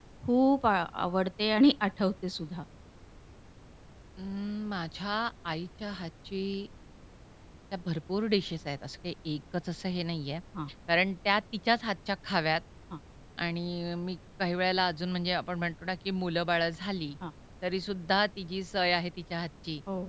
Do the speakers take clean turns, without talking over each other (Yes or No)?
Yes